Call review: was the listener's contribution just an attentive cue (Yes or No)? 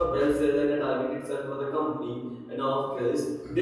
Yes